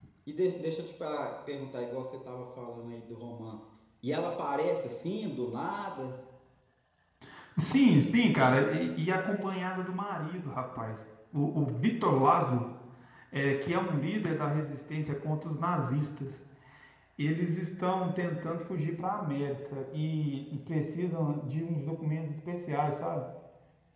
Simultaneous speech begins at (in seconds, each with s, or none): none